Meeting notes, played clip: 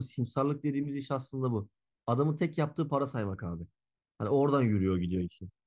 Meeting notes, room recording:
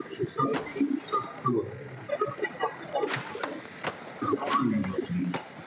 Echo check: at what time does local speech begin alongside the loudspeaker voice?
none

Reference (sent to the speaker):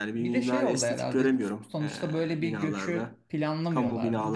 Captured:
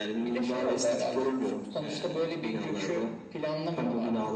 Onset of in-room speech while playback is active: none

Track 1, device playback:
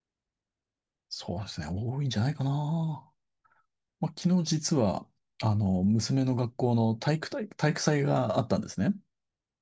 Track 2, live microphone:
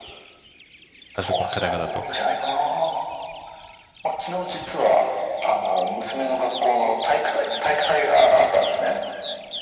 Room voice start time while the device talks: 1 s

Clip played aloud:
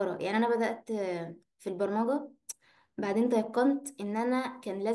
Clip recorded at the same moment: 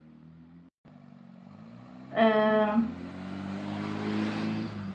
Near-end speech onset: 2 s

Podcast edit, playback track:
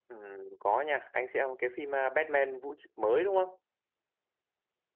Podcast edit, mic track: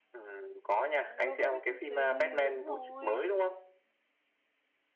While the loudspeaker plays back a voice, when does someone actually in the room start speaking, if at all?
1 s

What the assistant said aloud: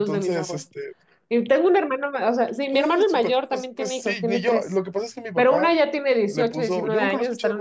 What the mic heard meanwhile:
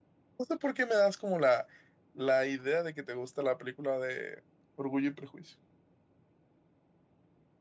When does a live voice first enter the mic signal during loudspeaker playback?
0 s

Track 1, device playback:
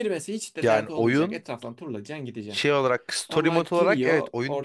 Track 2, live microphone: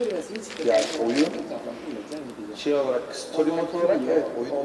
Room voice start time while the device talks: none

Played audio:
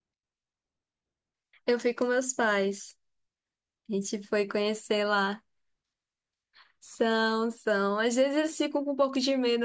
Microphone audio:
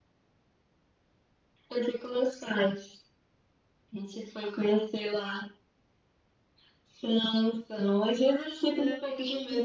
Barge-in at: 9 s

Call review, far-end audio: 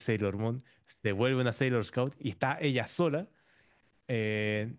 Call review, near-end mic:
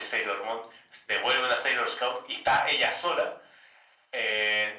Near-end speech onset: none

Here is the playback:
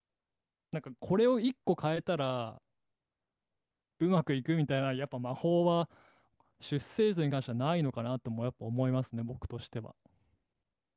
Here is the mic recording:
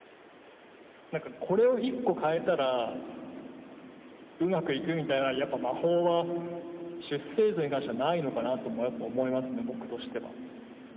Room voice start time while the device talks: none

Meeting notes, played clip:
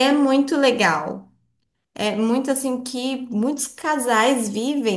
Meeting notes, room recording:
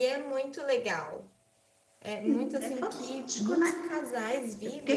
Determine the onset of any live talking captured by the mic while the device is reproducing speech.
2 s

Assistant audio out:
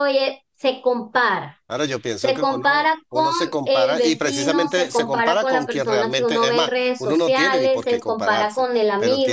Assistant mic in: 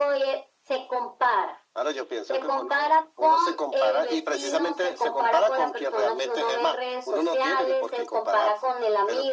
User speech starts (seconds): none

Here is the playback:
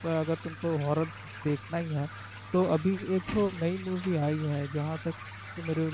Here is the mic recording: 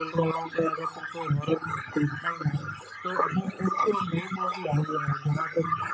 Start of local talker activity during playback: none

